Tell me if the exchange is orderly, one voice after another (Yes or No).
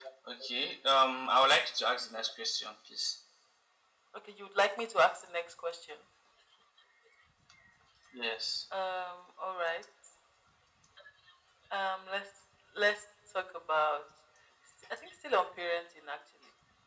Yes